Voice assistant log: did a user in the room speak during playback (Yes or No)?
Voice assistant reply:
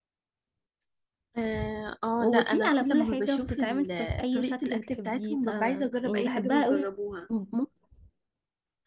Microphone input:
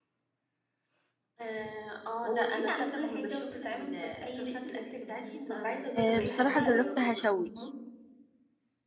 Yes